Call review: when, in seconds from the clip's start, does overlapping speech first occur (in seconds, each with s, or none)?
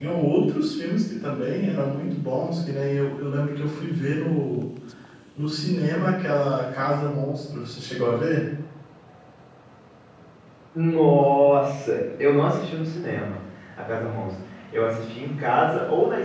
none